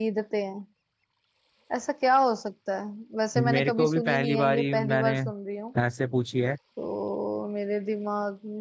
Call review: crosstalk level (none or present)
present